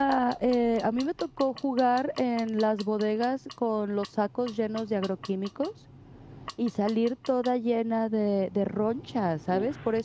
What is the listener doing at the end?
listening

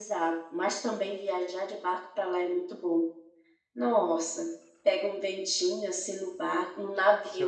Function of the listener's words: taking over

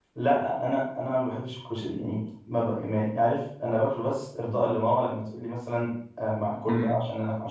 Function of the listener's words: listening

